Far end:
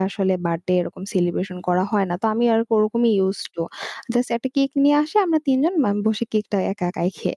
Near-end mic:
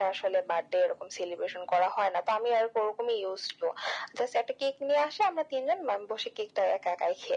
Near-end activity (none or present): none